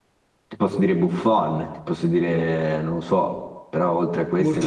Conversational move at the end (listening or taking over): taking over